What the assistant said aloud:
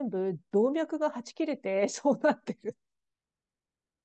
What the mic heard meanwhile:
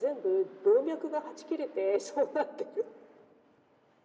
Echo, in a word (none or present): present